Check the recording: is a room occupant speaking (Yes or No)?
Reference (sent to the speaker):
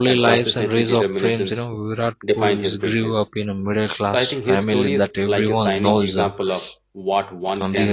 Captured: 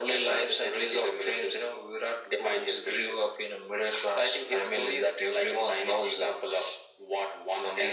No